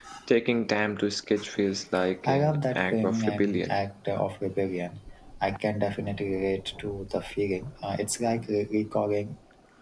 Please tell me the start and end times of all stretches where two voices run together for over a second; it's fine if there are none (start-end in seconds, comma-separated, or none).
2.2-3.8